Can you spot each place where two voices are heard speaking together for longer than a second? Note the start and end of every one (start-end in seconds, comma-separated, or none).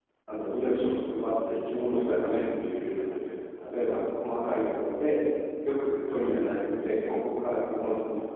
none